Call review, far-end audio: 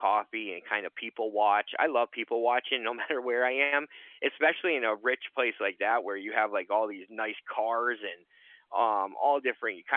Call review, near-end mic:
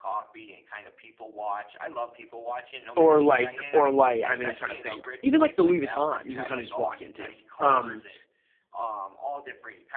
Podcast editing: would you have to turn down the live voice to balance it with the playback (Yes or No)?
Yes